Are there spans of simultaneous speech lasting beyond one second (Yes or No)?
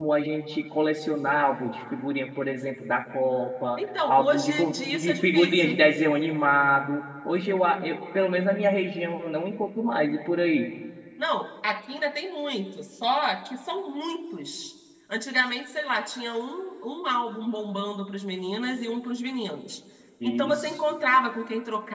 Yes